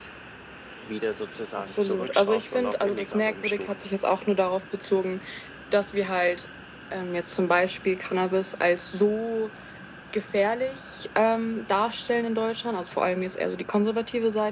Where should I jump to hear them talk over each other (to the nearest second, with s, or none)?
2 s